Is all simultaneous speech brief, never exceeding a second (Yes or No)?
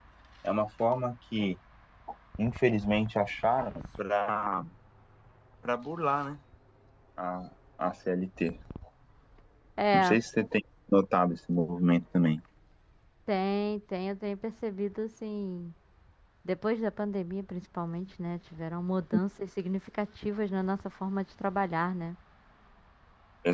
Yes